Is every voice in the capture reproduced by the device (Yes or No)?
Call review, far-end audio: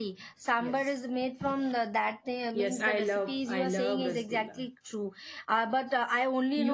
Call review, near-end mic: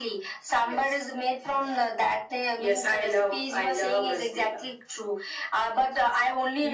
Yes